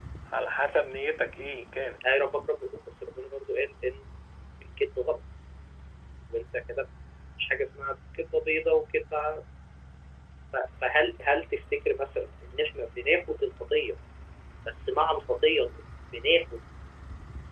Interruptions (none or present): none